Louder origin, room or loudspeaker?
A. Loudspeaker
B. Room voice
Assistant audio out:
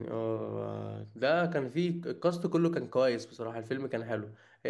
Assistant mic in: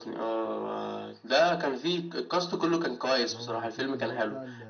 A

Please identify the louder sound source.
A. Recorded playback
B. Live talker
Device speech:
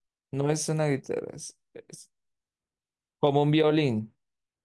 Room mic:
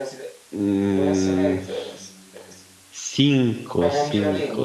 B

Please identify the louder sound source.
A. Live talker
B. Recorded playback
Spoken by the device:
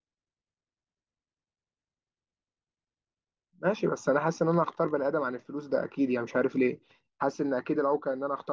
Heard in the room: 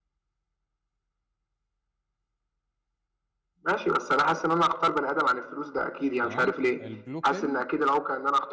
B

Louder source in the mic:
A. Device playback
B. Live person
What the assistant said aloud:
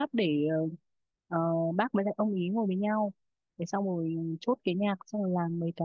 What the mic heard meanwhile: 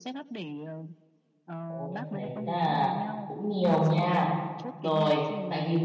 B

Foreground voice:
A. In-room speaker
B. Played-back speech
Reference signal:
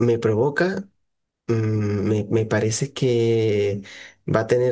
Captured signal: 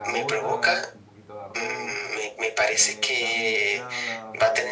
B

